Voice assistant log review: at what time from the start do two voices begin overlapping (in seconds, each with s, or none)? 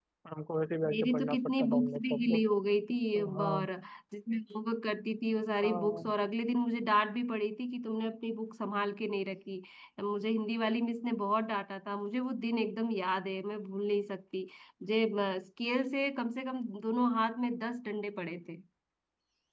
0.9 s